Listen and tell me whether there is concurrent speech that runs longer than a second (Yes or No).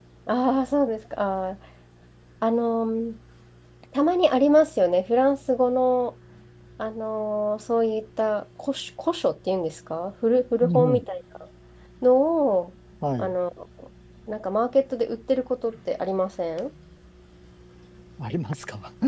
No